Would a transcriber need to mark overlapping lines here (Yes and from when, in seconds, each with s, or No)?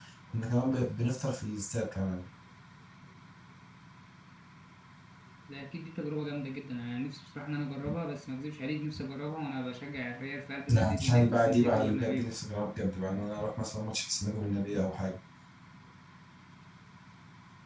Yes, from 10.7 s